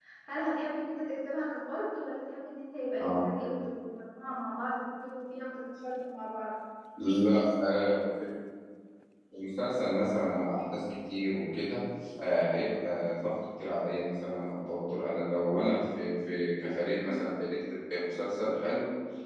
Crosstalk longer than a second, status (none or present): none